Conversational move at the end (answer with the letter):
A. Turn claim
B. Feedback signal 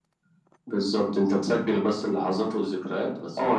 A